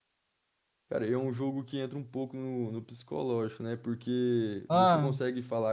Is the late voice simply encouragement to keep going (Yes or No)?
Yes